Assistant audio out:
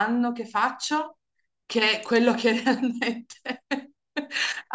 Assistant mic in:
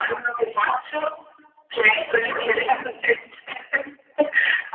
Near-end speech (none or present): none